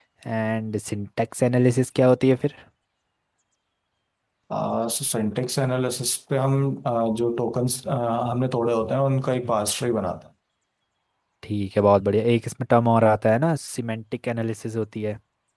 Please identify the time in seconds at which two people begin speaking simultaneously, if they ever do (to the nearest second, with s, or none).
none